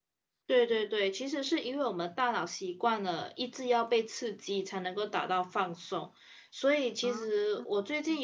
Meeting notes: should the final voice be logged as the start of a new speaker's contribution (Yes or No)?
No